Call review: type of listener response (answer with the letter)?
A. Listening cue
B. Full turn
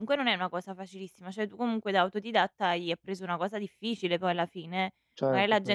A